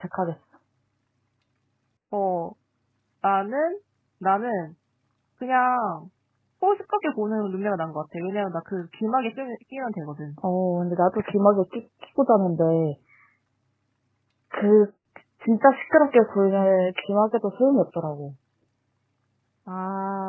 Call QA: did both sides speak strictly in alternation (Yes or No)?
Yes